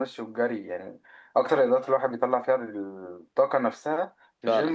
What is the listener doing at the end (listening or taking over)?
listening